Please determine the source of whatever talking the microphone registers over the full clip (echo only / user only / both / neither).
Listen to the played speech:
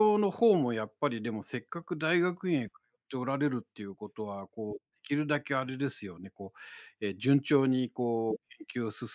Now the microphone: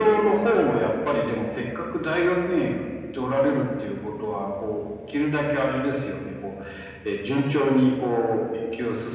echo only